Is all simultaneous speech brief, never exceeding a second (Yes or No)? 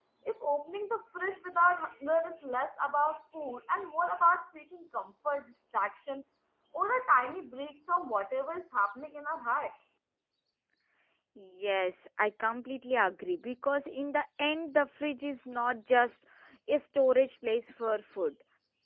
Yes